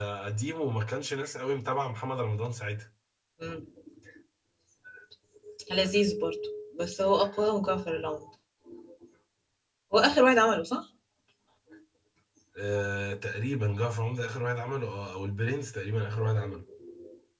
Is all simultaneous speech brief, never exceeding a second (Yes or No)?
Yes